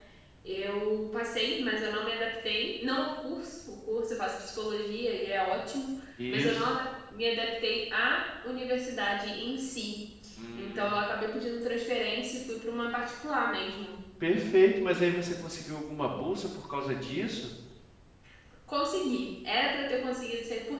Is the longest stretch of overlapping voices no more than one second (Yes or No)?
Yes